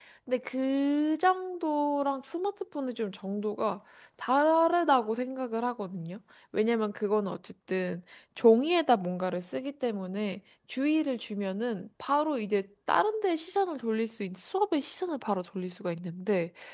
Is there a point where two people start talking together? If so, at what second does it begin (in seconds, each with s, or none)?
none